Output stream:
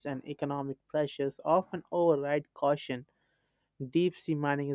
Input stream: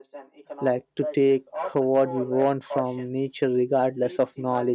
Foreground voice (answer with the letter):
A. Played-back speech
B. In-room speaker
B